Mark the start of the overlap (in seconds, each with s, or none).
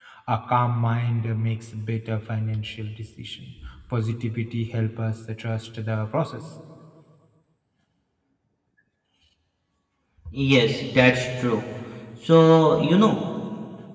none